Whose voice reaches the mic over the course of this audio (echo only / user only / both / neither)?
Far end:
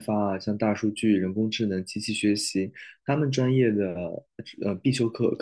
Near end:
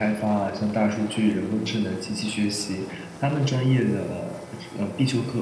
echo only